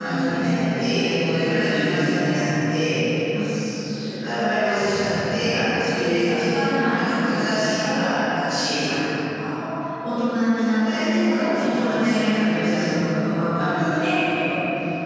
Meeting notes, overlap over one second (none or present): present